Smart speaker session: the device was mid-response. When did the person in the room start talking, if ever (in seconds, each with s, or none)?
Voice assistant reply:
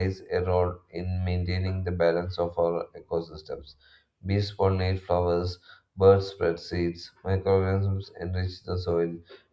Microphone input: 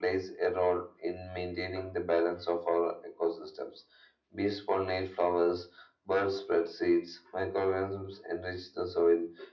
none